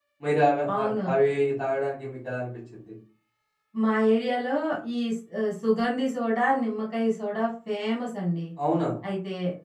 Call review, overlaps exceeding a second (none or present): none